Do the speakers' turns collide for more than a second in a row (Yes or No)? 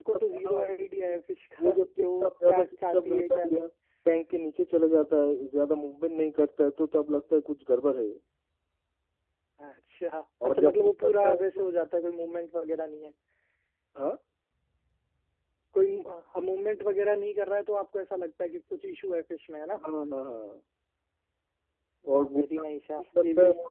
Yes